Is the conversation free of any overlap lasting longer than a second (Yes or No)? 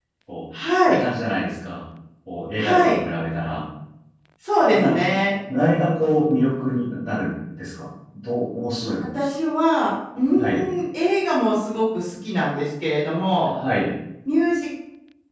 Yes